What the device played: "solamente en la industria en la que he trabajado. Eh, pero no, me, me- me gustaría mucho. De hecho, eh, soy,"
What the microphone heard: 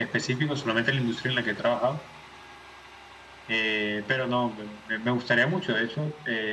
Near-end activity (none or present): none